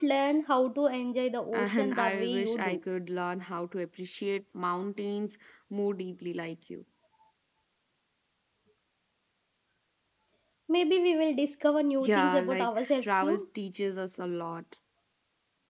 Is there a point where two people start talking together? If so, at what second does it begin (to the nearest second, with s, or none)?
2 s